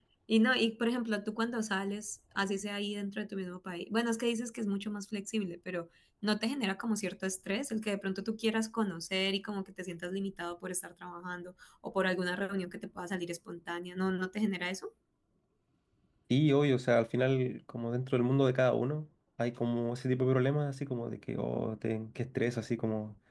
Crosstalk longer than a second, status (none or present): none